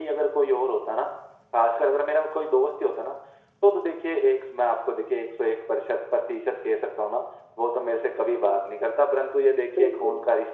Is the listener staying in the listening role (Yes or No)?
Yes